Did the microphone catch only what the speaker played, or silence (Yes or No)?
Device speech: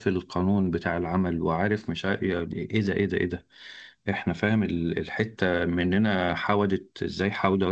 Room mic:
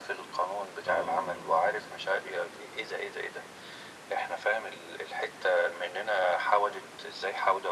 No